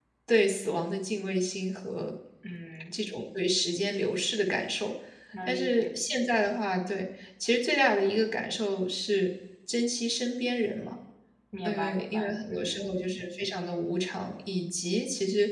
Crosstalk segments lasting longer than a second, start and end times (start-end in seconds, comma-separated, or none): 11.6-12.9